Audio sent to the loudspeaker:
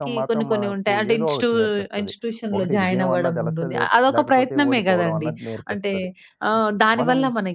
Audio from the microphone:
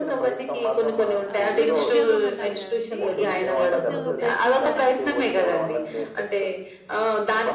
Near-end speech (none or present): present